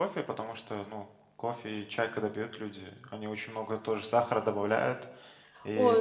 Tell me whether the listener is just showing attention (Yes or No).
No